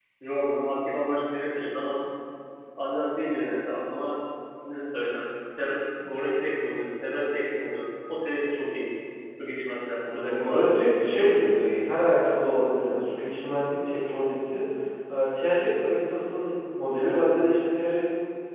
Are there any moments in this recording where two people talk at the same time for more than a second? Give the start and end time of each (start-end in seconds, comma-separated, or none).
10.0-11.8